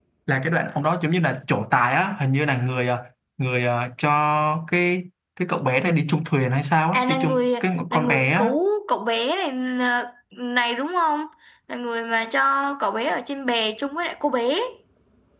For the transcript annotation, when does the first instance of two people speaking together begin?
6.9 s

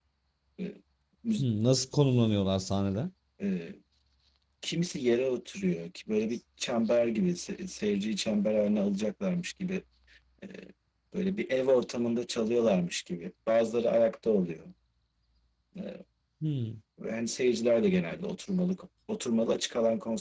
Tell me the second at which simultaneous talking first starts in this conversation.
none

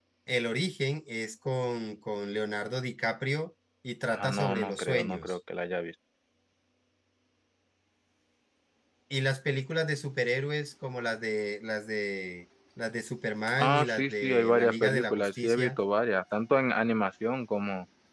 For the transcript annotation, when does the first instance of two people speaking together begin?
4.1 s

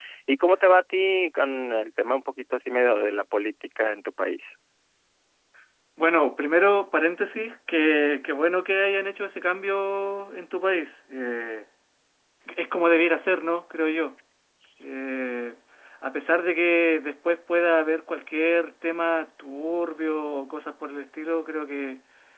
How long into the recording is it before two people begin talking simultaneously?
none

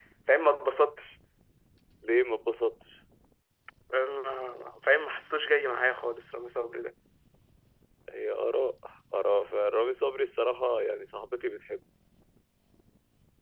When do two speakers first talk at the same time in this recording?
none

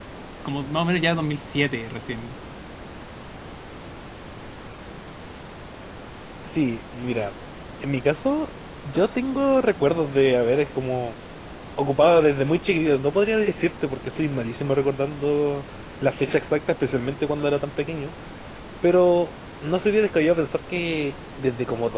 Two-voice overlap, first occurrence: none

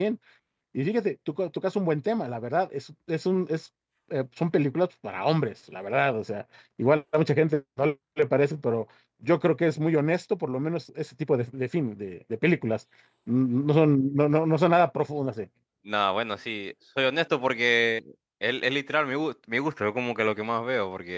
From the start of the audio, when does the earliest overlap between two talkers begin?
none

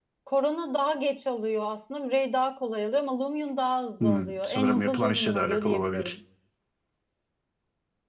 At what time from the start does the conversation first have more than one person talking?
4.0 s

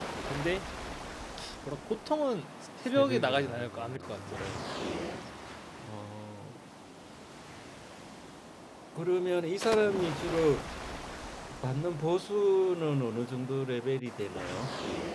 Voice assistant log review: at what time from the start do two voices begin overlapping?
3.0 s

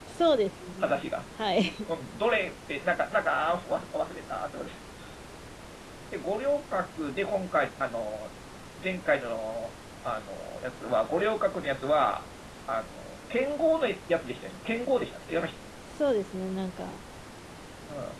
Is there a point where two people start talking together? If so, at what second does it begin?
none

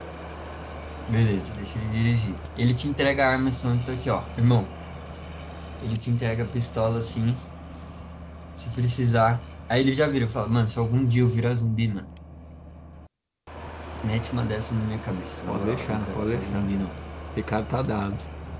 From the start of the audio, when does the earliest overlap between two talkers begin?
15.5 s

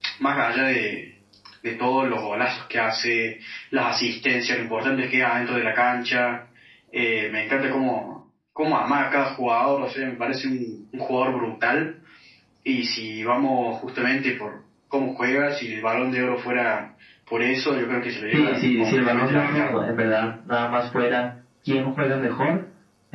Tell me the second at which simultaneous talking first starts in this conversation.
18.3 s

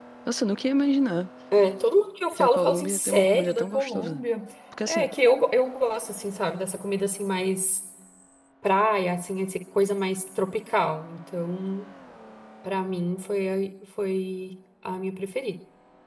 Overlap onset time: 2.4 s

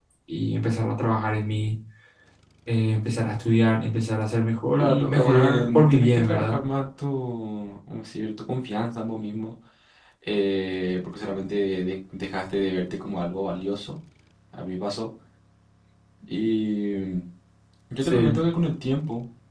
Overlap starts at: 4.7 s

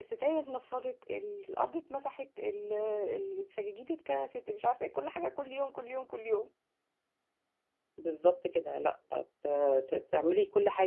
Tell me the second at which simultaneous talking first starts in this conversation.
none

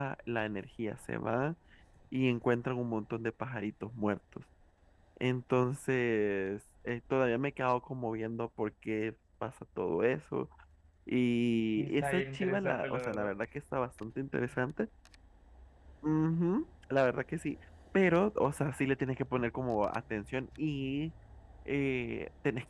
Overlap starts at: 11.8 s

